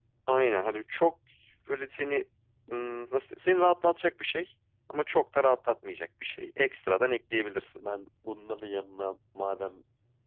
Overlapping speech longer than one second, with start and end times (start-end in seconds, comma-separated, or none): none